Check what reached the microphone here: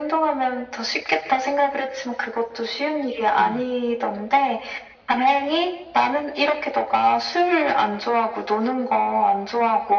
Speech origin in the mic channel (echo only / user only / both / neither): both